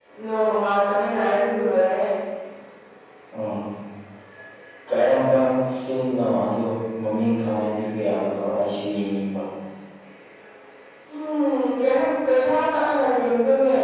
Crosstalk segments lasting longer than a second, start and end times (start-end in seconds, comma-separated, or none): none